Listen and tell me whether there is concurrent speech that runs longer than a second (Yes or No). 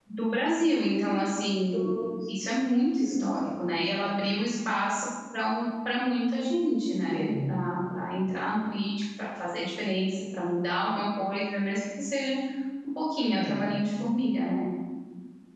No